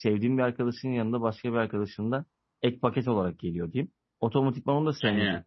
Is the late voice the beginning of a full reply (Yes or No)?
No